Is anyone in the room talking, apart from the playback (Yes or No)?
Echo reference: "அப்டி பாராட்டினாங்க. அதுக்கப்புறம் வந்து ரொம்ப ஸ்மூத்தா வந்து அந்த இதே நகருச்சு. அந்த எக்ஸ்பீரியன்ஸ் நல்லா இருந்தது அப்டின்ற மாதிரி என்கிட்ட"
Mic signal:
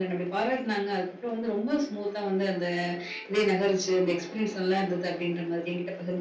No